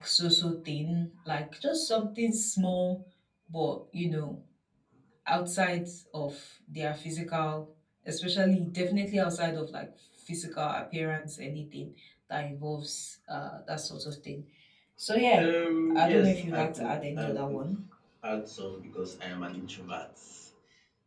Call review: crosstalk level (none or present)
present